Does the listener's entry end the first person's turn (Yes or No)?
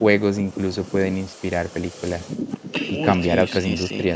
Yes